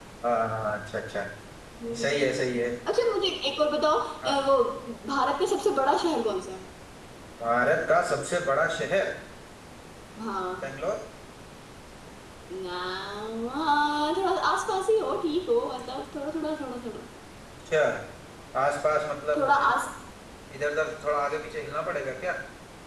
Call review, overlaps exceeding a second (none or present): none